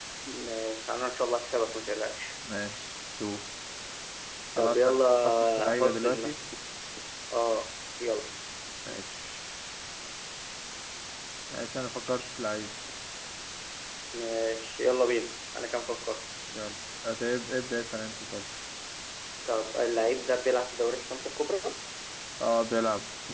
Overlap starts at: 4.6 s

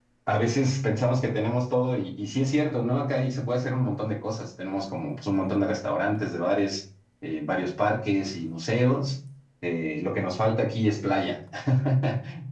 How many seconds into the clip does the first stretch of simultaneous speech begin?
none

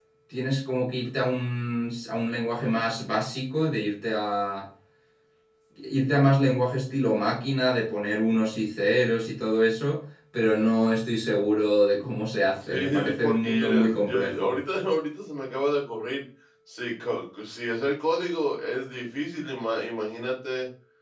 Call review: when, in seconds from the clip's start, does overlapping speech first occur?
12.6 s

